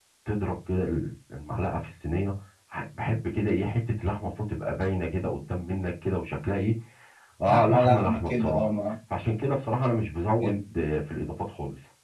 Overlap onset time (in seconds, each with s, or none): 7.5 s